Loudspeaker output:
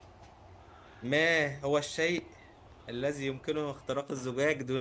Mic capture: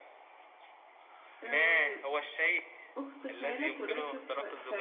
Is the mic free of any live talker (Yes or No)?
No